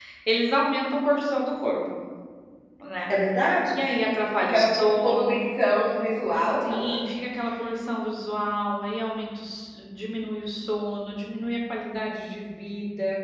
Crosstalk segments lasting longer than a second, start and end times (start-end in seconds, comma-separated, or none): 3.8-5.5